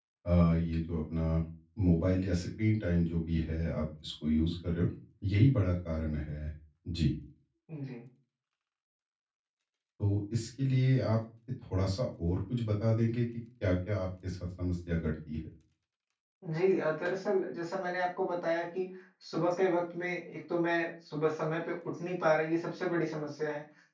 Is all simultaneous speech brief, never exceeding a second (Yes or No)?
Yes